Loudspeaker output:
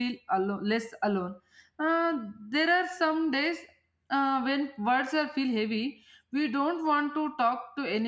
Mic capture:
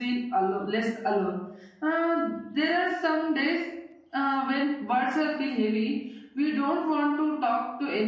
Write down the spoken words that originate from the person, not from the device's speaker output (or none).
none